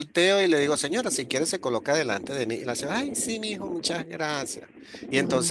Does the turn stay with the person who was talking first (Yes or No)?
Yes